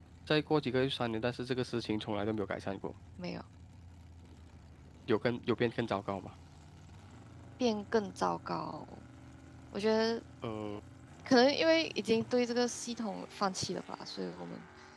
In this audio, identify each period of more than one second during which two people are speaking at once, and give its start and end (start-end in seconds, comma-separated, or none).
none